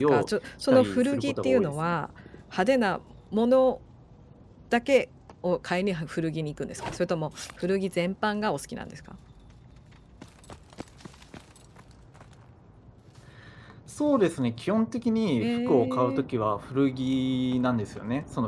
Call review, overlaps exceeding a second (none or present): present